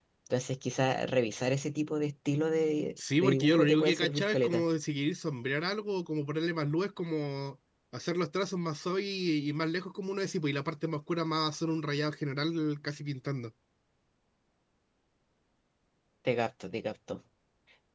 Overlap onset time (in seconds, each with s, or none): 3.2 s